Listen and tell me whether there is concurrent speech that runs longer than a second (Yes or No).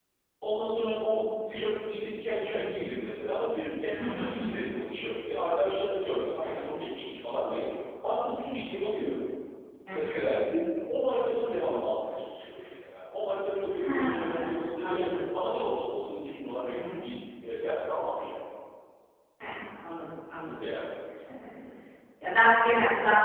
Yes